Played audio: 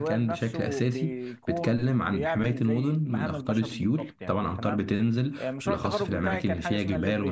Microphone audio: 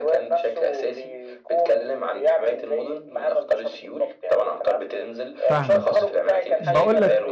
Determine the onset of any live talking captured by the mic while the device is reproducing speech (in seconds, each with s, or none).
5.5 s